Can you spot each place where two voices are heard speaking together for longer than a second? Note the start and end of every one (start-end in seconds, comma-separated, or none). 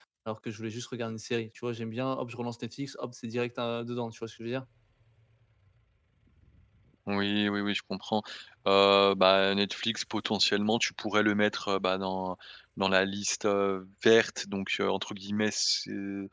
none